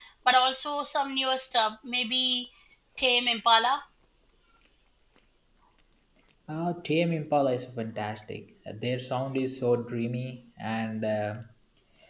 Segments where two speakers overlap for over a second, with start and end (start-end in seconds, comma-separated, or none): none